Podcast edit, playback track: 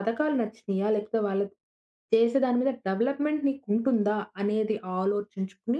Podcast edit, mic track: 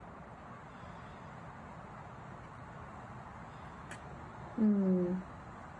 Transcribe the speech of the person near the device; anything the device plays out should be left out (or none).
హ్మ్.